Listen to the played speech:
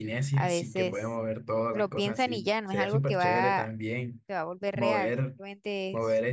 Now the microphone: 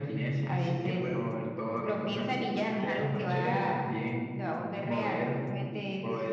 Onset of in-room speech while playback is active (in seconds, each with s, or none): none